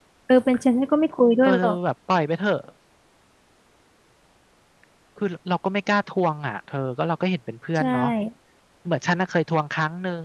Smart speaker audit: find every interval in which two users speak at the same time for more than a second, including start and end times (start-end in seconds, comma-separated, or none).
none